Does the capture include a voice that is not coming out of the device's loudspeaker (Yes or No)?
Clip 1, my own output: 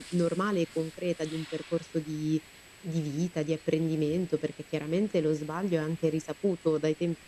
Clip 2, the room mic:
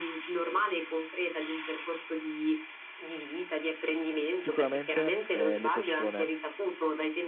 Yes